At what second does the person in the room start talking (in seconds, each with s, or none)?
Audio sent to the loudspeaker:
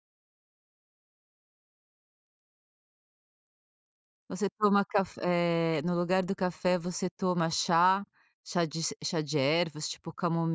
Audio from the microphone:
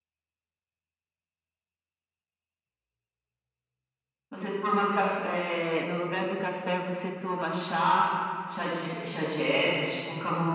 none